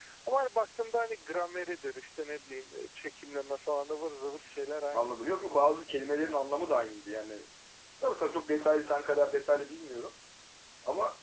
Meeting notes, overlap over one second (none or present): none